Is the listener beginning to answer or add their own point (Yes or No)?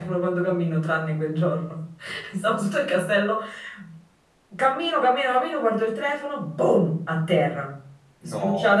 No